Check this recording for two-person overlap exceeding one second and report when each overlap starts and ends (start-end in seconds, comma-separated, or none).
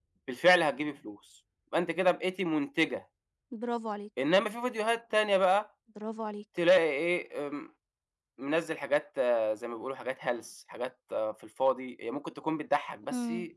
none